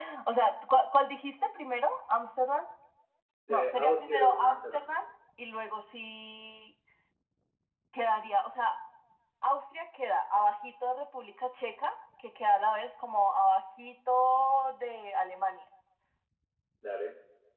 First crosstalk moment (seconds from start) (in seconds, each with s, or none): 3.5 s